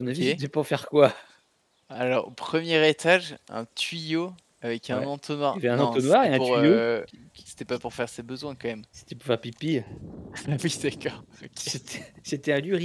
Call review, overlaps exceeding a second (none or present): present